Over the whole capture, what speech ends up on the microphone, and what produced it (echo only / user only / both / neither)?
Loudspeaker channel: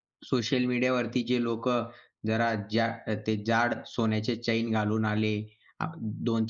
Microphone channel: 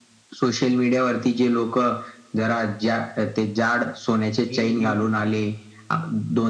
both